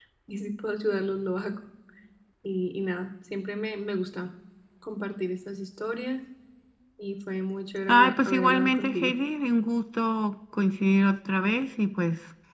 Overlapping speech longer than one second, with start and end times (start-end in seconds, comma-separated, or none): 7.9-9.1